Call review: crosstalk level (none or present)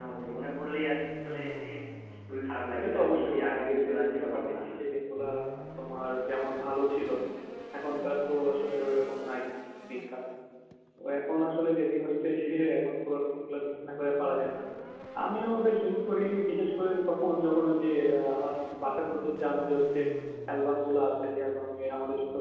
present